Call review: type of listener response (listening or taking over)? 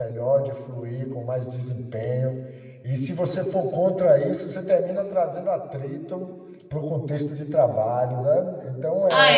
taking over